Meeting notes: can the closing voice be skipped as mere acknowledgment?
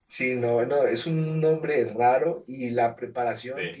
Yes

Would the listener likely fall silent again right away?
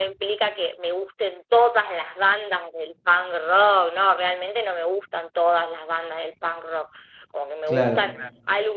Yes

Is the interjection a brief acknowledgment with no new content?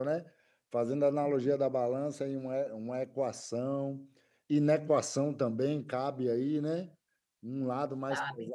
Yes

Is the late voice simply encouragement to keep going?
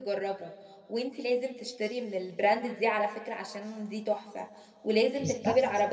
Yes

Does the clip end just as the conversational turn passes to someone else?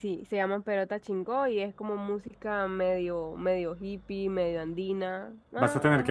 Yes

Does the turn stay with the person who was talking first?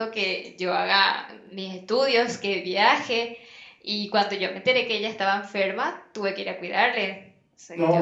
No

